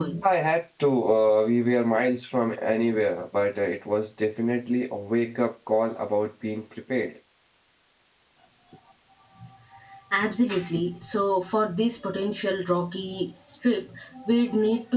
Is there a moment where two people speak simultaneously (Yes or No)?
No